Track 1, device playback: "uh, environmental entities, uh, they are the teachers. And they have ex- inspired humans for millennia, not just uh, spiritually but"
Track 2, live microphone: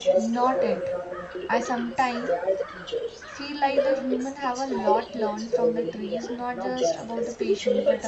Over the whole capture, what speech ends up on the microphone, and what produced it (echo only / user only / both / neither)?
both